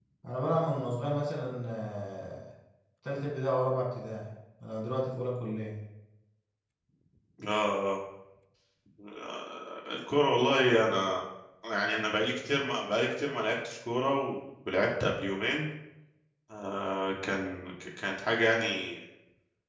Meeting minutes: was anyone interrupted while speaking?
No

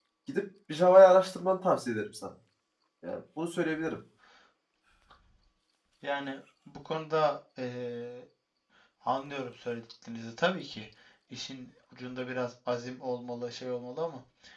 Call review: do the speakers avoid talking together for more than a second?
Yes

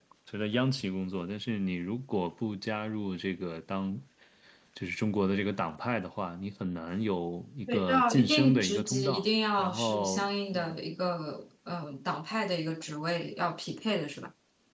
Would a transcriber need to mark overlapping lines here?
Yes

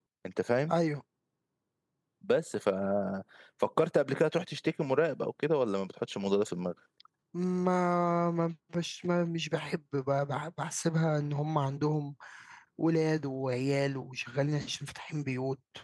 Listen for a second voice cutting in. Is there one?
No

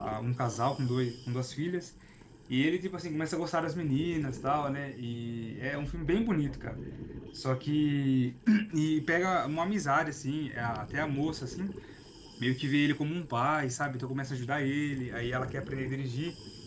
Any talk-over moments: No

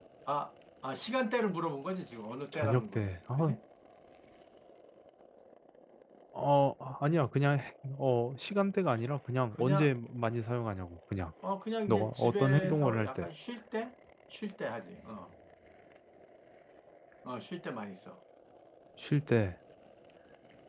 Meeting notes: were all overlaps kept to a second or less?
No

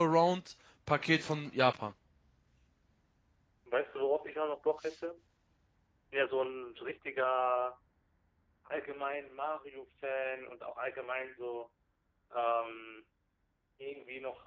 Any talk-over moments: No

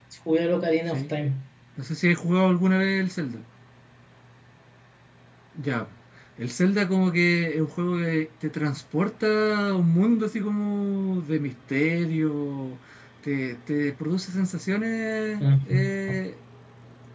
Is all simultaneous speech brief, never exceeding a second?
Yes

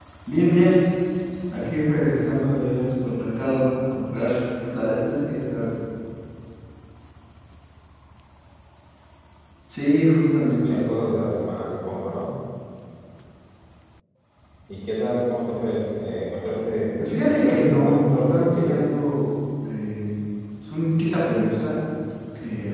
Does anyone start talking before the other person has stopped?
Yes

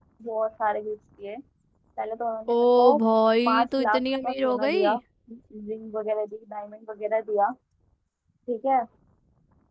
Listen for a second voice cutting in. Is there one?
Yes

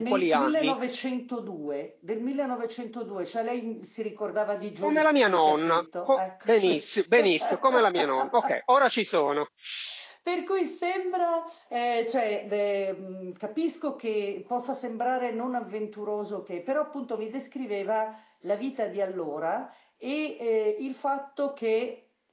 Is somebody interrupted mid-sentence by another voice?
Yes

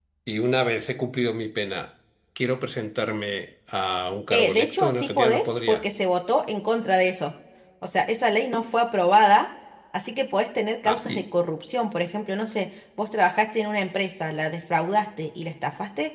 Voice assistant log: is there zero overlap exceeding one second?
No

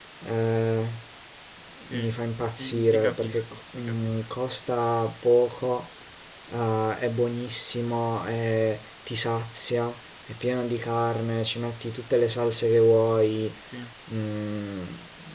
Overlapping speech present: Yes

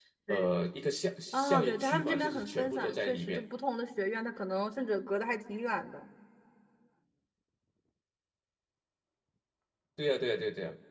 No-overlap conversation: No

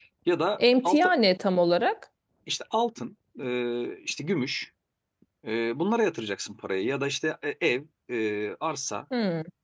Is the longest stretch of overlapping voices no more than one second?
Yes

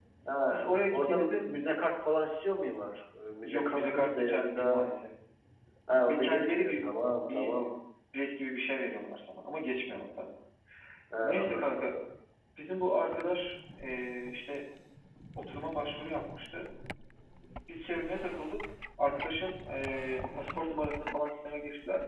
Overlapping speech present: Yes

